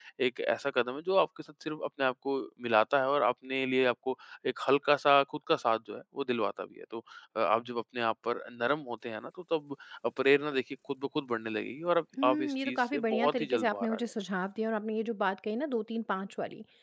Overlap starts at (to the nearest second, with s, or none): 12 s